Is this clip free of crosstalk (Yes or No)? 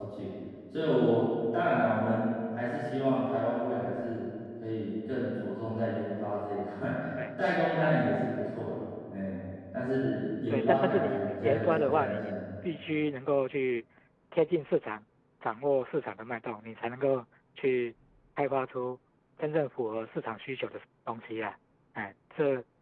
No